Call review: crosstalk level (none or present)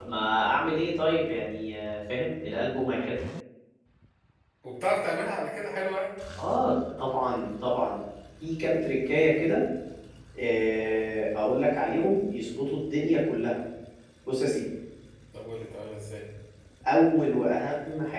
none